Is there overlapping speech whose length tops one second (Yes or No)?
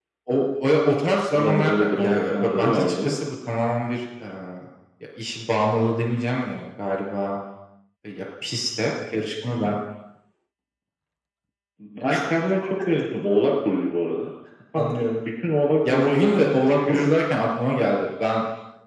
Yes